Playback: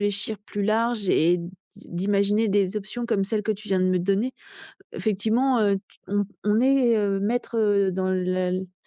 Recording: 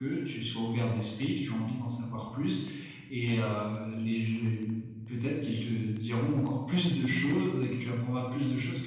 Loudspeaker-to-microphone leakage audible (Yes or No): No